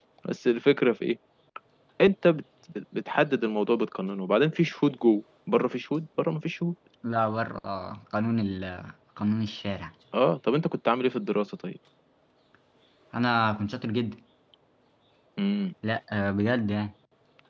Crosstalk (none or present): none